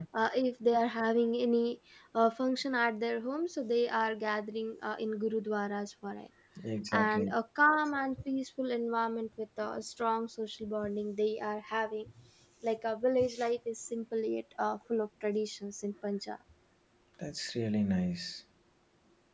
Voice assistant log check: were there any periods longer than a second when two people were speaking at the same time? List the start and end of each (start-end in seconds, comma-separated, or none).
none